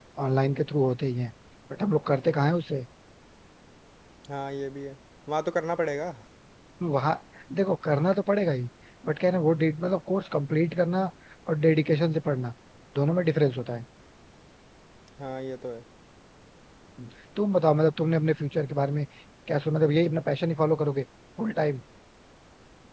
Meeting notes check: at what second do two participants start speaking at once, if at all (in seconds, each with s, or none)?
none